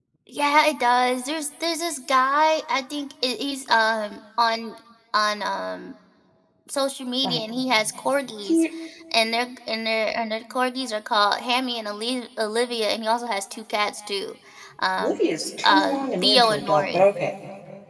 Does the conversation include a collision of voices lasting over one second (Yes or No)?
Yes